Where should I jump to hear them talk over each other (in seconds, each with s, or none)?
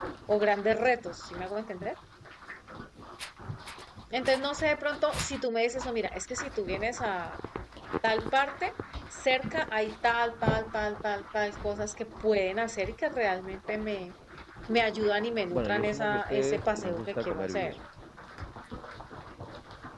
15.5 s